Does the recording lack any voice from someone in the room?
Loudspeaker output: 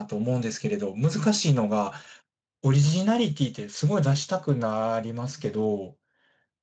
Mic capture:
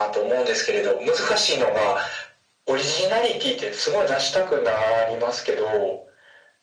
Yes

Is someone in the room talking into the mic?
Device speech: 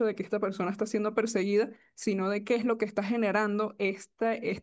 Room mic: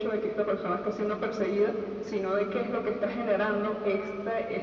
No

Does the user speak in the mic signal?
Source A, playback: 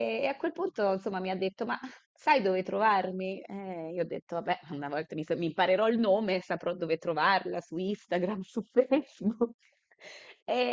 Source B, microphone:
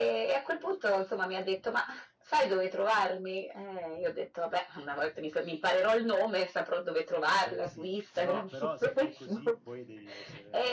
Yes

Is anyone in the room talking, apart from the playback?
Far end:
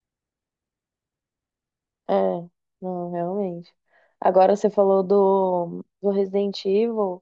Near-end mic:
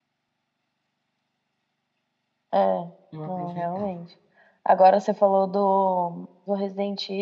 Yes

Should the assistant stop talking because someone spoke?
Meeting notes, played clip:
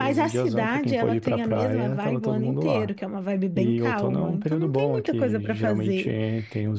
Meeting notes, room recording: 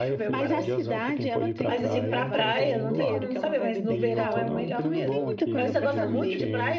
Yes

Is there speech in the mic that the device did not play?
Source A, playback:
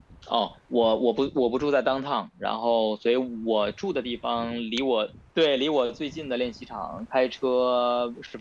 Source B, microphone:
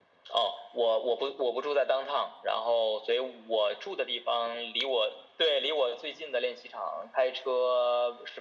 No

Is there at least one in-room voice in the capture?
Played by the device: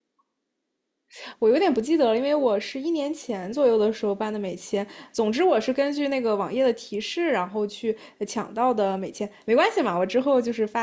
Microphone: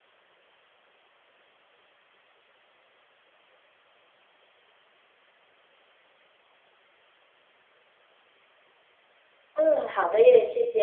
Yes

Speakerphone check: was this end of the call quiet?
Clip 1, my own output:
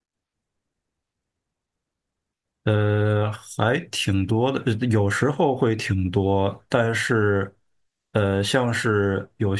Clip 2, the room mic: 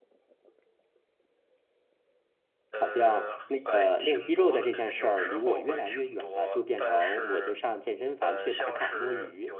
No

